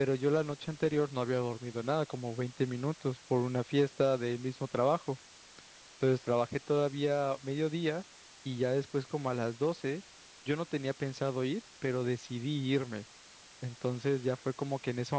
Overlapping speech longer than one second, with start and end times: none

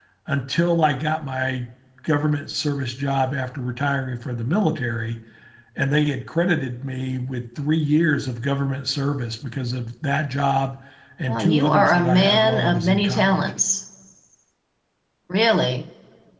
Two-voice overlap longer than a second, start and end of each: 11.3-13.4

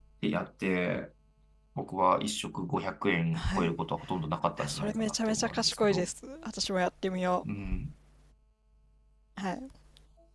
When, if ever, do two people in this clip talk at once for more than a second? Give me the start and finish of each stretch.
4.7-6.1

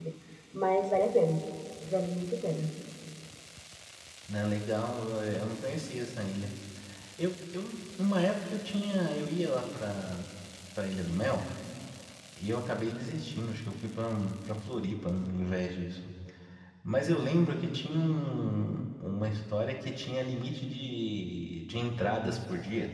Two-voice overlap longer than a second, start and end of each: none

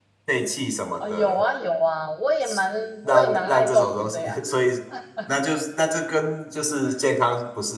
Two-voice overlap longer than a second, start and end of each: 3.0-4.4

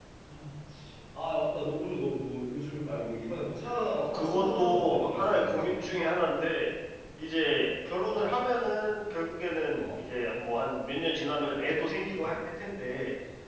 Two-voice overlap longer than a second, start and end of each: 4.0-5.7

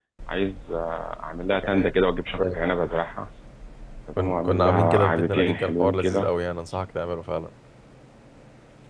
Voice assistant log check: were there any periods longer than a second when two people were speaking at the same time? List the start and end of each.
4.2-6.2

